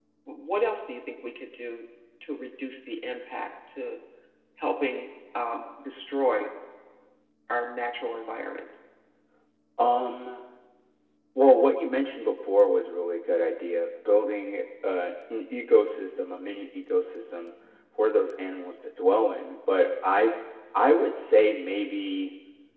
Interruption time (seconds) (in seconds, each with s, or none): none